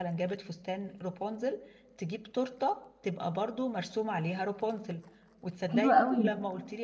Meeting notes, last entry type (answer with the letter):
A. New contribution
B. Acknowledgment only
B